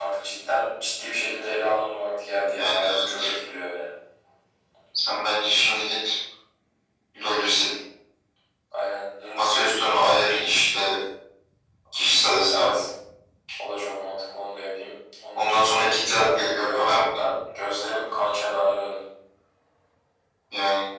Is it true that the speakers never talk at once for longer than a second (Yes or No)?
No